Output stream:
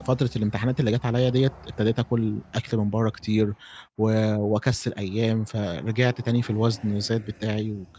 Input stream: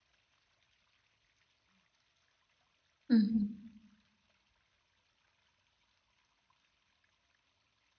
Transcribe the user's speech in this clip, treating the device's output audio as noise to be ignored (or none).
اهم.